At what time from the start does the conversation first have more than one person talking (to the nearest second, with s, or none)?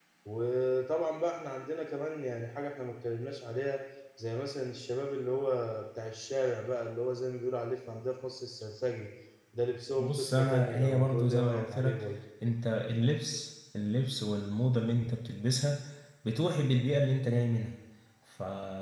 10 s